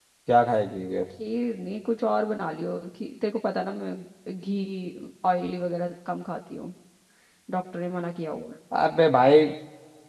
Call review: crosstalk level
none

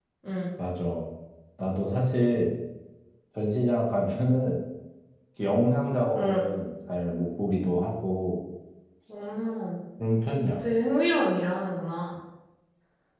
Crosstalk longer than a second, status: none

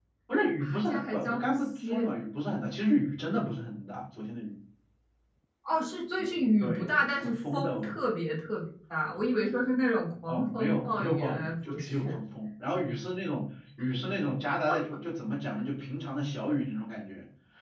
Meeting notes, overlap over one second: present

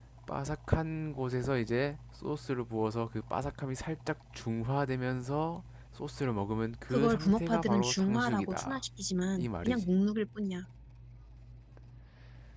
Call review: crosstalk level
present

